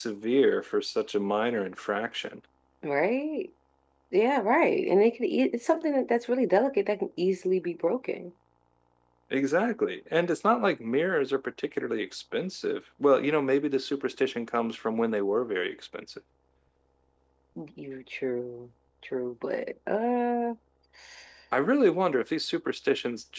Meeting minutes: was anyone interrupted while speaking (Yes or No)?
No